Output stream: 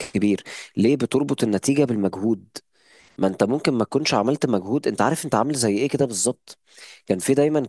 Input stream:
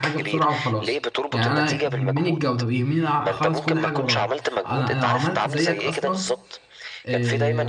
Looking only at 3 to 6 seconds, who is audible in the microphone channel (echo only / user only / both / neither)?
both